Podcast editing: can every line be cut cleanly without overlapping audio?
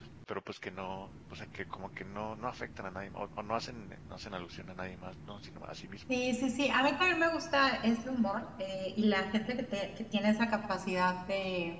Yes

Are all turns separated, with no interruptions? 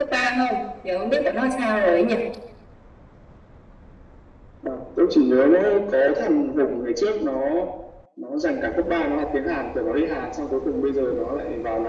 Yes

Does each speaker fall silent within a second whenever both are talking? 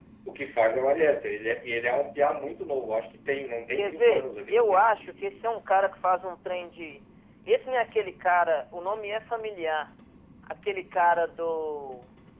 No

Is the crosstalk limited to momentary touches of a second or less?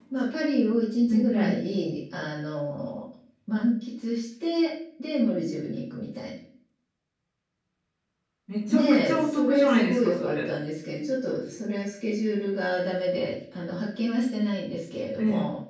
No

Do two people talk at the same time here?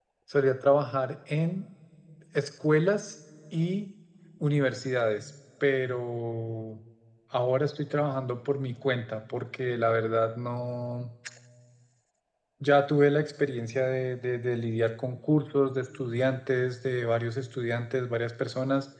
No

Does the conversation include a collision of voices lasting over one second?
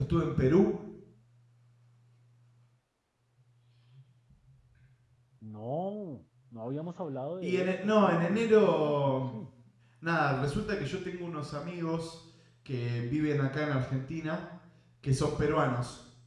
Yes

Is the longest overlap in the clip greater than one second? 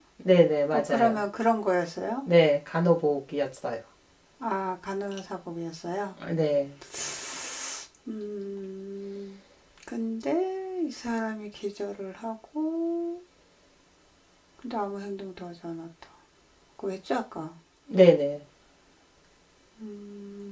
No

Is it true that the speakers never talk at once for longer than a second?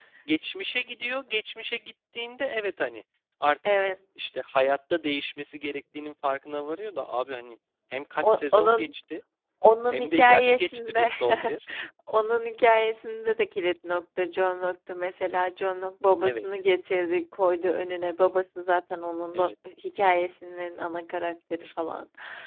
No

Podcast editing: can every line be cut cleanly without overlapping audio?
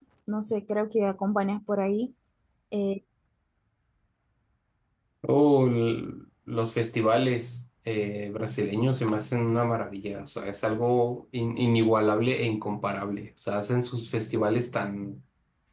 Yes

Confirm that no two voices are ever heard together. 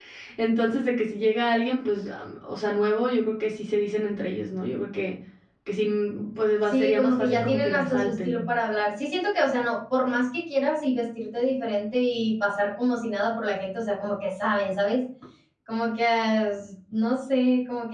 No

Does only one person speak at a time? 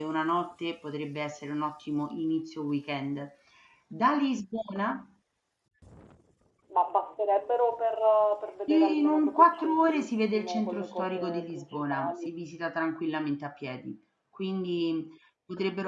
No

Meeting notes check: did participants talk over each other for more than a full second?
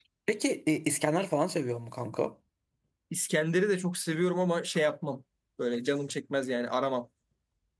No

